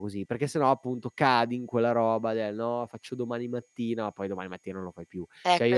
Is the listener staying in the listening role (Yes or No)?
Yes